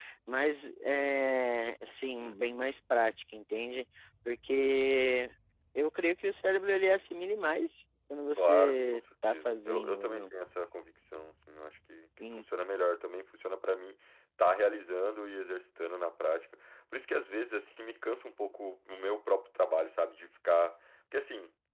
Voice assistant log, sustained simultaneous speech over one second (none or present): present